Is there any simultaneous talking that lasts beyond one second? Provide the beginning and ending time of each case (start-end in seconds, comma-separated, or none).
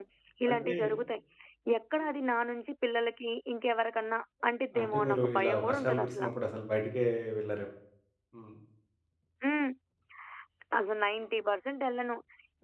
4.8-6.2